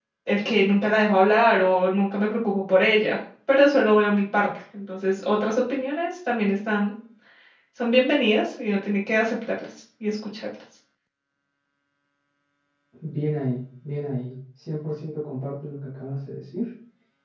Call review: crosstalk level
none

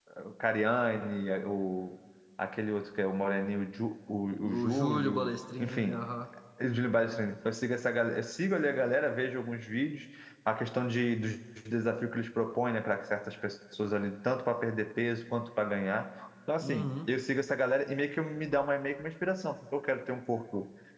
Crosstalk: present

